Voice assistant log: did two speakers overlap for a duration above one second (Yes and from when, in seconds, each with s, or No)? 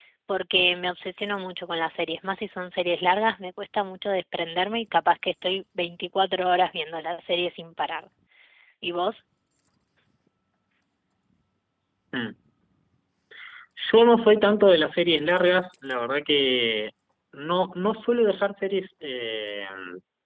No